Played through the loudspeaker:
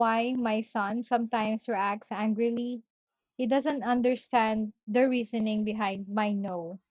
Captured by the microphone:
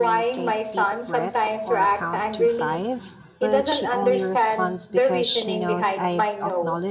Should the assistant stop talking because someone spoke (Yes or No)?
Yes